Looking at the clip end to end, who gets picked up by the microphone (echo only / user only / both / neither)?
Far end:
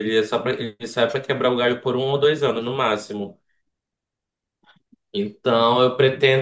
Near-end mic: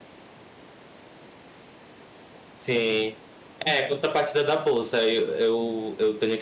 user only